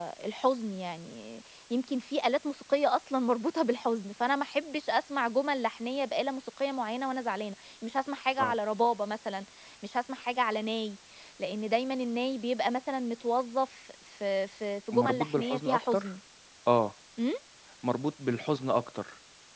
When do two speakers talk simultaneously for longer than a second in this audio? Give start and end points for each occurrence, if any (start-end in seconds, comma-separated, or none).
14.9-16.1